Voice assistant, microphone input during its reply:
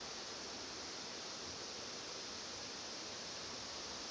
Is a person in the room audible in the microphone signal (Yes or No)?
No